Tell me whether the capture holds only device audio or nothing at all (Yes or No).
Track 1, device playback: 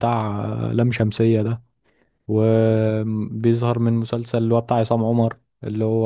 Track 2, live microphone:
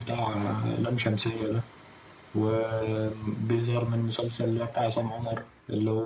Yes